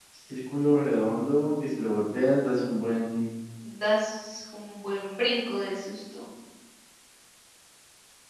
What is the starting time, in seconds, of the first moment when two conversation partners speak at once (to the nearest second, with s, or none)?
none